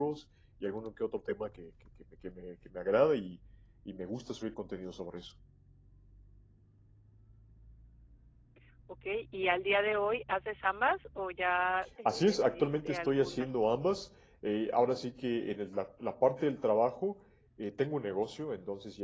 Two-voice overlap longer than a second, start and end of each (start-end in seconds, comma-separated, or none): 12.1-13.5